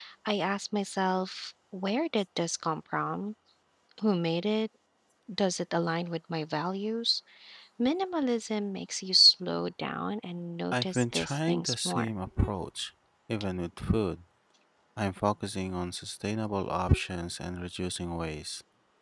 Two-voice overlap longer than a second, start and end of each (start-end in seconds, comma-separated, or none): 10.7-12.1